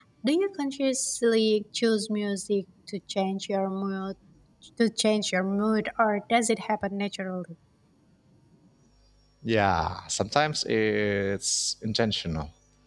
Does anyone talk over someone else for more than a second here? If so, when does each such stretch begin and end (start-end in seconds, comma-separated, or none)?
none